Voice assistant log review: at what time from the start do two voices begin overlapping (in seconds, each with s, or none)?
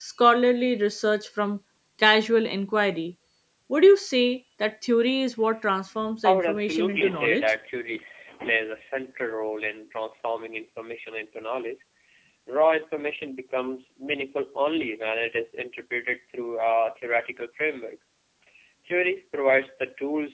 6.2 s